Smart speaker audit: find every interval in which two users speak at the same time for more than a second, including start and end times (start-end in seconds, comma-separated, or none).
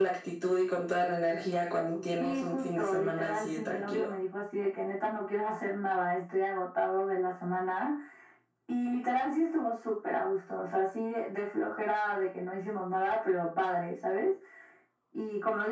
2.2-4.1